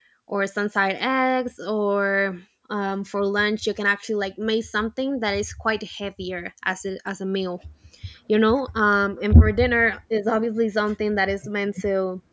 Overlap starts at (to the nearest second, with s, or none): none